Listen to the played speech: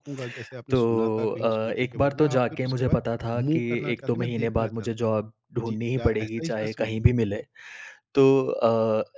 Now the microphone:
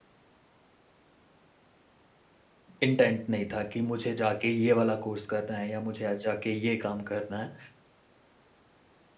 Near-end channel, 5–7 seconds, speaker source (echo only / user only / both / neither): user only